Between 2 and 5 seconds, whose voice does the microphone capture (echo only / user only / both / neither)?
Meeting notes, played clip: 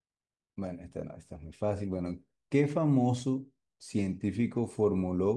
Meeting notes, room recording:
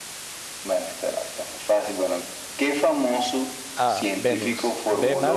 both